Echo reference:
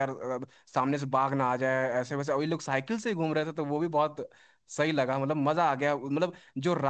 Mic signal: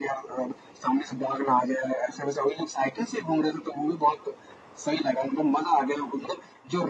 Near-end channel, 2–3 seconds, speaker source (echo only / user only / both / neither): echo only